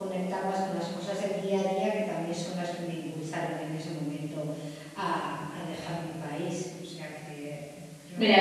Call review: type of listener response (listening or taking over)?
taking over